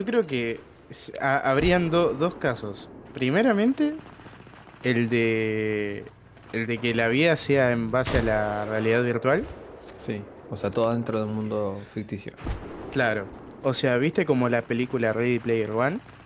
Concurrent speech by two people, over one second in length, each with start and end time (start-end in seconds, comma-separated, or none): none